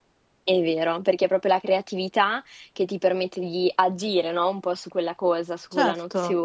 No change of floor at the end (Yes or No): Yes